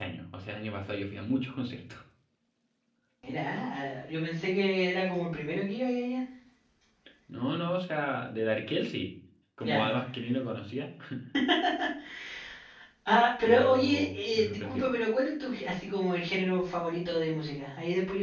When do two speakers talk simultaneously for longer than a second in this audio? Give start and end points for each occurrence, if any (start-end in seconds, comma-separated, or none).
13.4-14.9